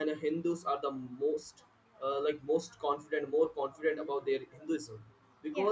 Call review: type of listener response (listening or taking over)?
listening